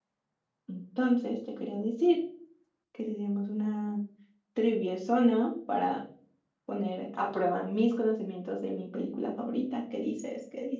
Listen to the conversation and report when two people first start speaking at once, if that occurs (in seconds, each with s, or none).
none